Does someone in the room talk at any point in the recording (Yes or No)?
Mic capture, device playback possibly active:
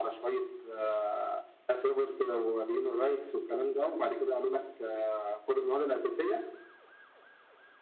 No